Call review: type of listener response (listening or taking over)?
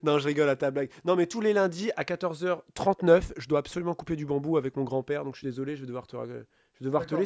taking over